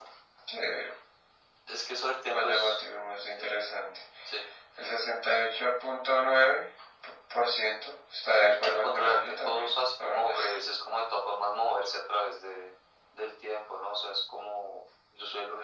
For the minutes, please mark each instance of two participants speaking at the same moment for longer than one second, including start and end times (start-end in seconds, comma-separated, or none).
8.6-10.4